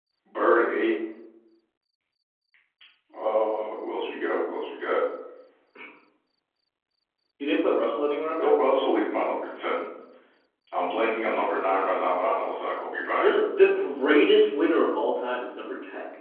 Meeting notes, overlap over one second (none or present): none